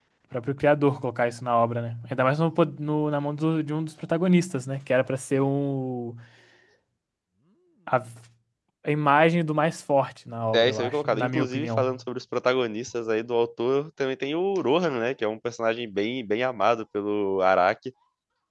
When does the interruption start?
10.5 s

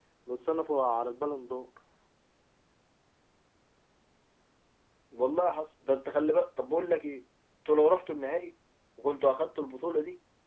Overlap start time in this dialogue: none

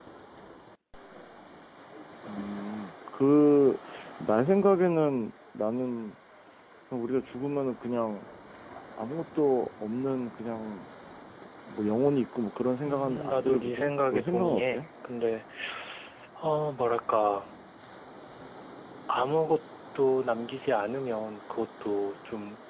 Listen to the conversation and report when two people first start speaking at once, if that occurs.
12.8 s

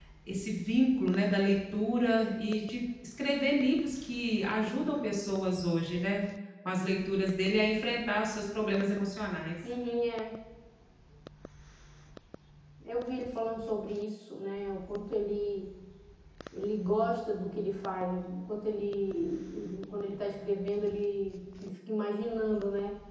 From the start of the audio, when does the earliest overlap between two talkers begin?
none

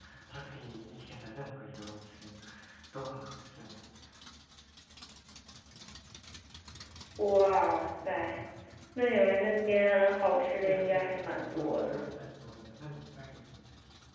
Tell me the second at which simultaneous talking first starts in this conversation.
10.6 s

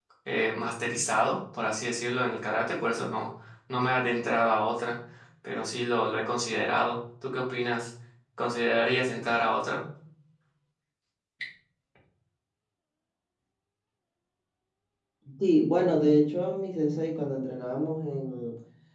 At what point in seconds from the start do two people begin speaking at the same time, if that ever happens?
none

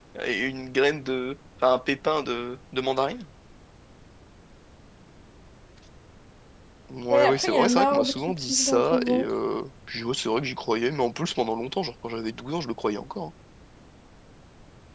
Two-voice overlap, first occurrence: 7.1 s

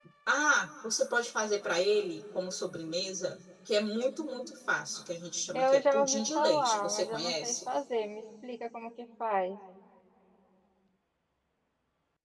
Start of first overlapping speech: 5.5 s

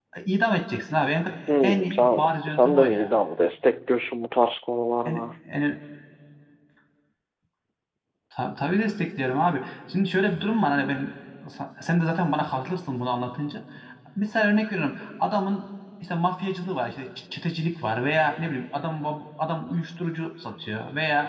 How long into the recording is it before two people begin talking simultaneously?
1.6 s

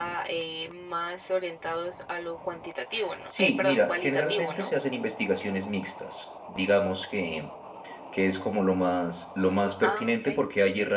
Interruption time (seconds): 3.3 s

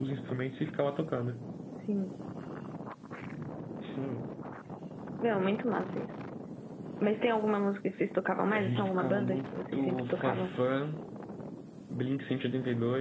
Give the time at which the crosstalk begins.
8.5 s

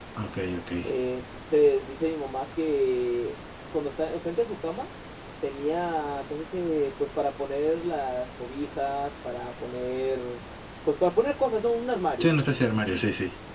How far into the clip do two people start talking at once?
none

